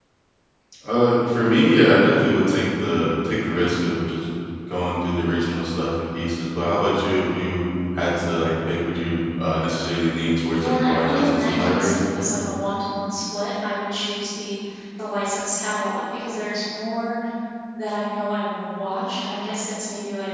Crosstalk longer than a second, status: present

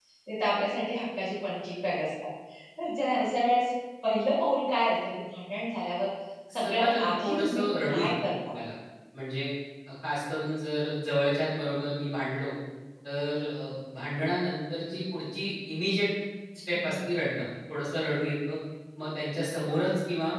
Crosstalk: present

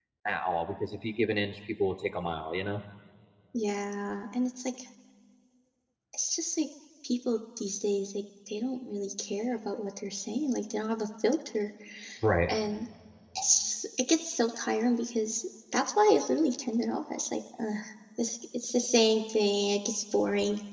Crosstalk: none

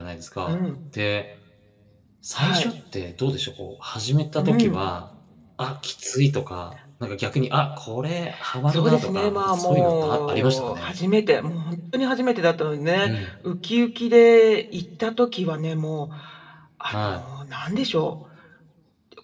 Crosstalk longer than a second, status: present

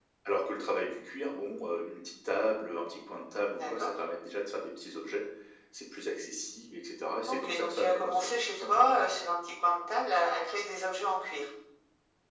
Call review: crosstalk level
present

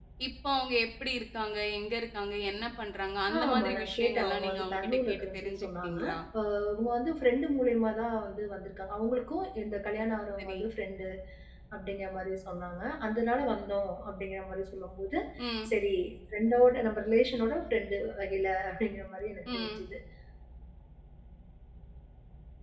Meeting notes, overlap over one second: present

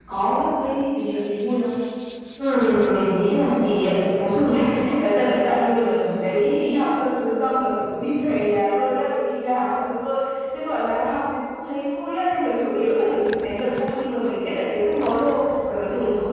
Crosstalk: none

